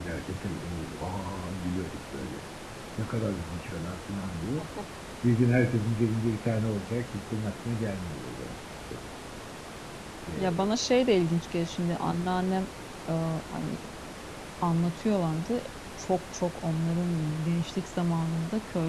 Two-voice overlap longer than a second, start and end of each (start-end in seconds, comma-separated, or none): none